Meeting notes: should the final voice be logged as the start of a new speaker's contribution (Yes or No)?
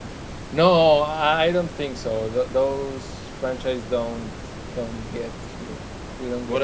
Yes